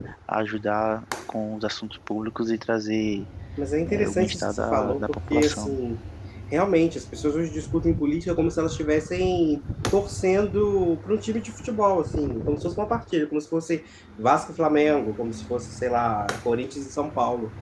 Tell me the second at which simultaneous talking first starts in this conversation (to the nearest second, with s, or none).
4 s